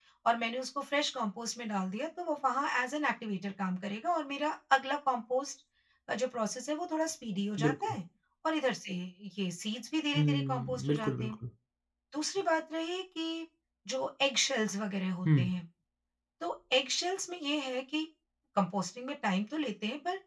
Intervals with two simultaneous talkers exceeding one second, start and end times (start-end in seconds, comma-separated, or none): 10.1-11.3